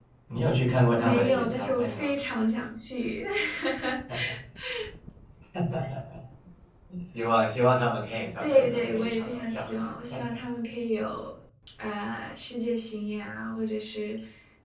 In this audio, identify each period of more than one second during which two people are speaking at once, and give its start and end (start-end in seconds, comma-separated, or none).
0.9-2.2, 8.4-9.7